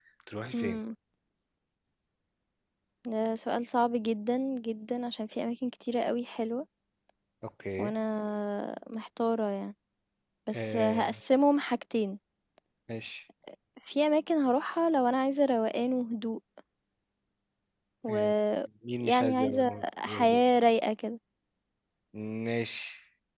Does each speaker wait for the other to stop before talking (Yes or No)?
No